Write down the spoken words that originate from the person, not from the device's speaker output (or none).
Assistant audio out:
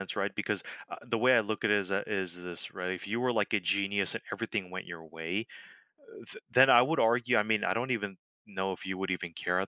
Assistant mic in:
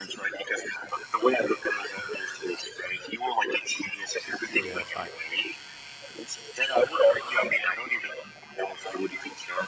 Yes, I